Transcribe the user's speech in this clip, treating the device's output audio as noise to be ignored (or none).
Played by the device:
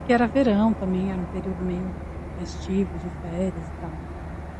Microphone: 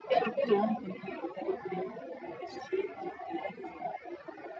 none